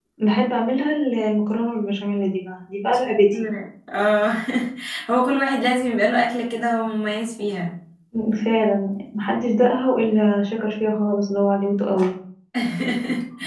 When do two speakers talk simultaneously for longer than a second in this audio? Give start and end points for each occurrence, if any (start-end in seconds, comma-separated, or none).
none